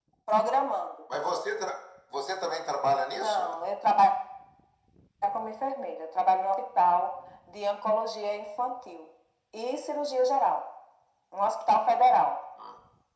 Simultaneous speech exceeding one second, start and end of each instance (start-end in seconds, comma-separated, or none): none